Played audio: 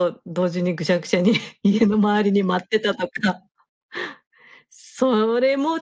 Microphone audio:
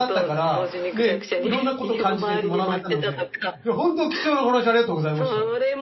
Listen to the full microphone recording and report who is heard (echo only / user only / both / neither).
both